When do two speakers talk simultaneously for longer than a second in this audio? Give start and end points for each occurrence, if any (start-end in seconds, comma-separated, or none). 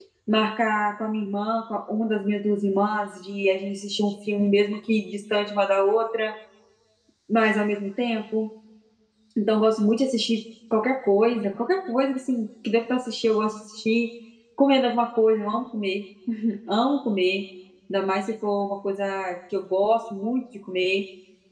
none